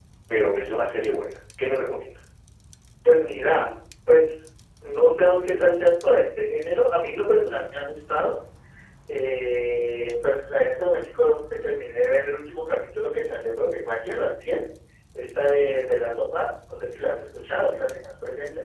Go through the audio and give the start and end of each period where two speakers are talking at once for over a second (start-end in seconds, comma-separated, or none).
none